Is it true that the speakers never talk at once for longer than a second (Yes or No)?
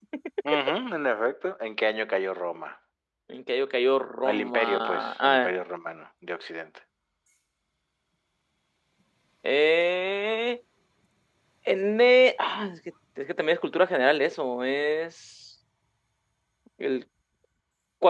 No